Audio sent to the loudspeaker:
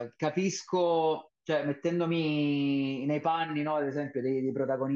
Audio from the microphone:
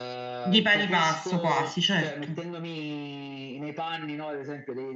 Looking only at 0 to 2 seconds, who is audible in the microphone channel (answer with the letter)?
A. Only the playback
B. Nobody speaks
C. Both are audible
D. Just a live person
C